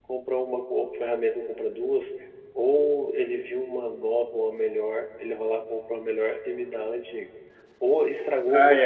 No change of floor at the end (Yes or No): Yes